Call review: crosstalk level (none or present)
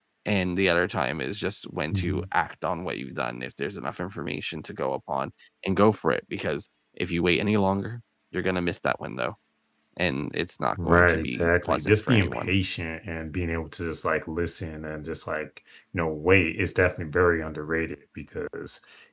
present